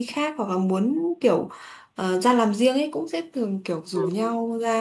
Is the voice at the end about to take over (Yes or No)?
No